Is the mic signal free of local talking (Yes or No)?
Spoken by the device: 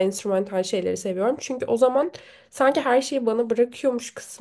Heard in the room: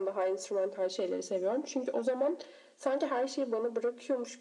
Yes